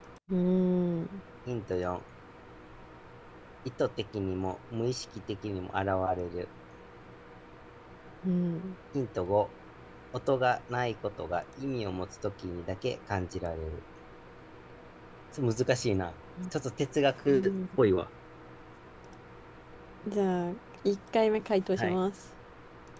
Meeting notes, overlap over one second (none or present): none